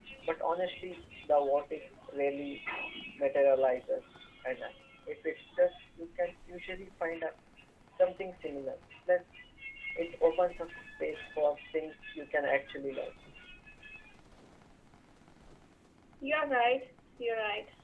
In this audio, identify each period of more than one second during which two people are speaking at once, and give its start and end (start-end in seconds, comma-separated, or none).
none